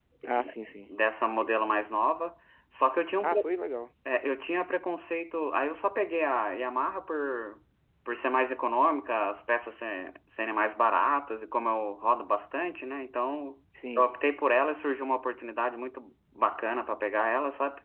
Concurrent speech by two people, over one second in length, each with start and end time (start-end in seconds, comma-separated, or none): none